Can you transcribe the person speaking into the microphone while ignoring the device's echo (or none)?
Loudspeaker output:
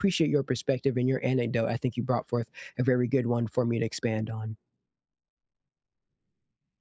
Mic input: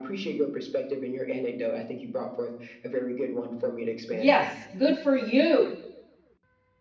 Yes, good for you